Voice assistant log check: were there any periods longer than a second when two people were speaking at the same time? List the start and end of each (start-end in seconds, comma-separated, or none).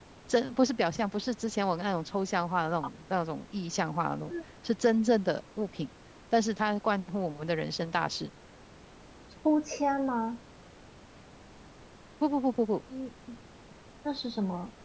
none